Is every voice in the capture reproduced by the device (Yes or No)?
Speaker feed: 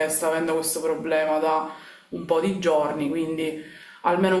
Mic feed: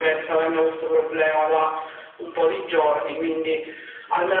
Yes